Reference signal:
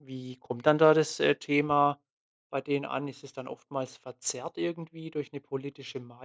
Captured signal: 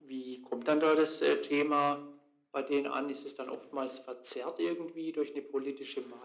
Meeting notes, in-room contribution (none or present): none